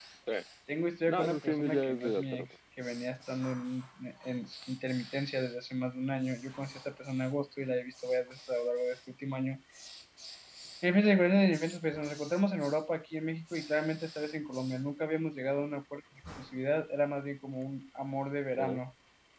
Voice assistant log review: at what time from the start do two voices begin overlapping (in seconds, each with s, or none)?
1.1 s